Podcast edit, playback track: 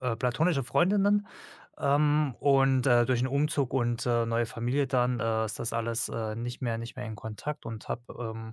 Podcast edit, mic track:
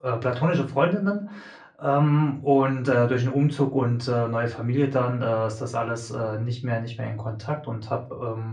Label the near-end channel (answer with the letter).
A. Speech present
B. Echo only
B